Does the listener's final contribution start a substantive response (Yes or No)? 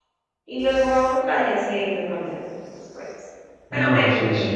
Yes